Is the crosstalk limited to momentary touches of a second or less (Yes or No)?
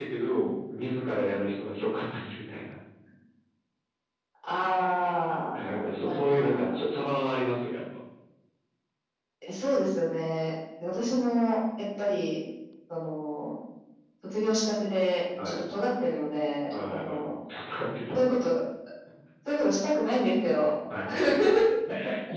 No